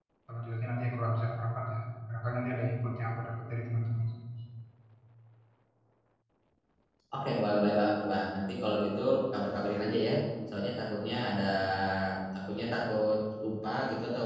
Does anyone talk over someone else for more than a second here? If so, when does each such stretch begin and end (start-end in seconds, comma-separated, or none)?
none